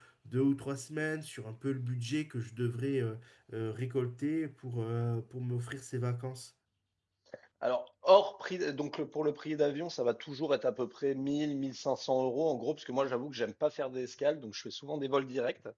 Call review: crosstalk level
none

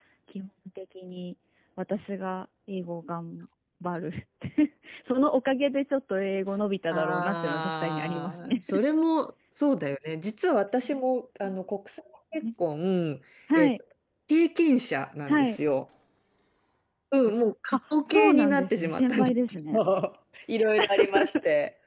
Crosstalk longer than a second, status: present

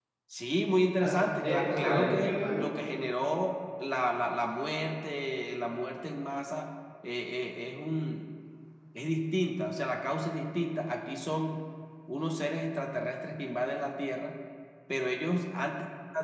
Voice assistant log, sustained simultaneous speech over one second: present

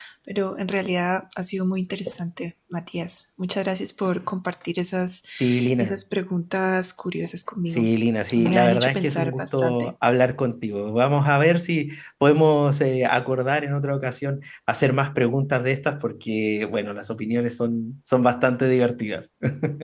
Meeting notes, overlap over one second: present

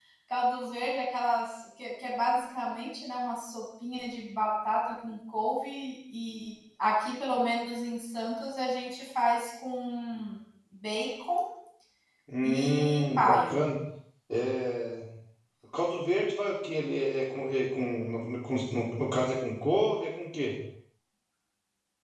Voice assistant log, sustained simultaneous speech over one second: present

